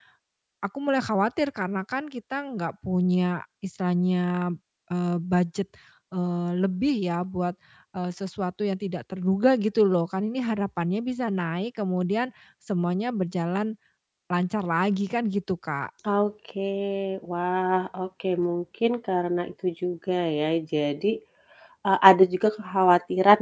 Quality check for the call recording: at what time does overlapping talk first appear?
none

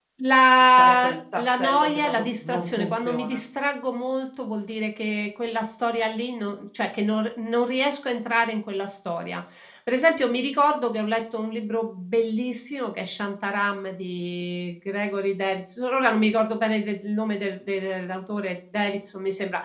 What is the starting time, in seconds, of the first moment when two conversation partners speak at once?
1 s

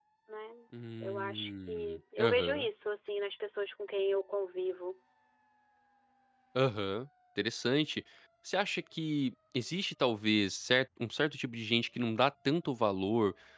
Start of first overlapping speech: 1 s

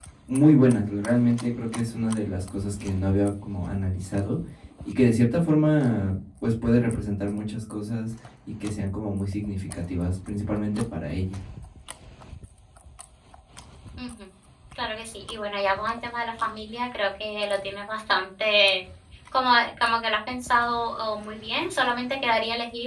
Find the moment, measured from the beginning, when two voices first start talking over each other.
none

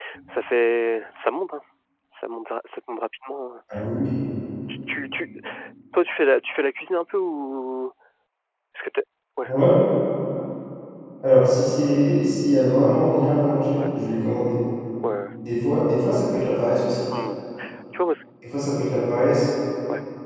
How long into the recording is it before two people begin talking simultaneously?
none

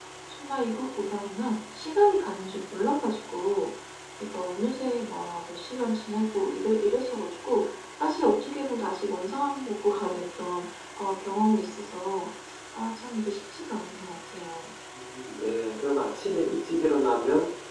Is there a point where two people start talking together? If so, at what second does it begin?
none

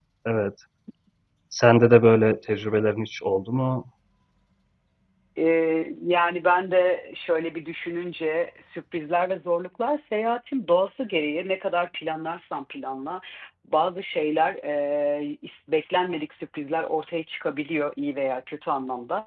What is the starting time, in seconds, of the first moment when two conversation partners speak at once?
none

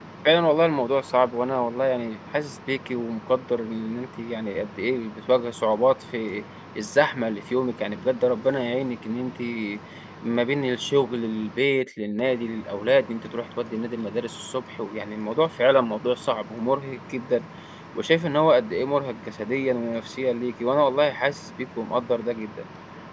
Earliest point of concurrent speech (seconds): none

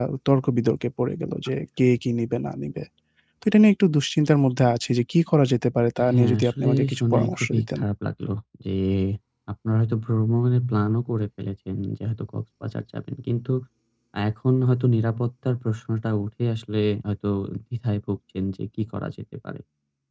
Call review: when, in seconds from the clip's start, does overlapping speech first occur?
6 s

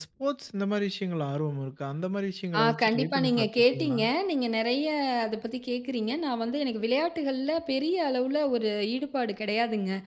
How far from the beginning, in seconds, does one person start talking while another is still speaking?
3 s

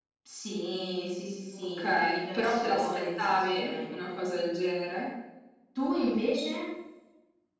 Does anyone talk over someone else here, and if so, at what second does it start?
2 s

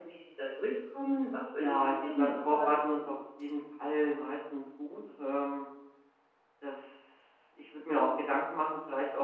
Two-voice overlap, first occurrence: 2 s

